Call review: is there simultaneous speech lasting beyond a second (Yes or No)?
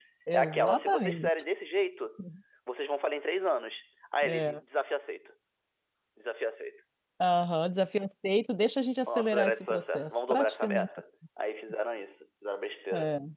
Yes